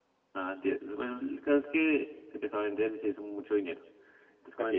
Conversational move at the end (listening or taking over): listening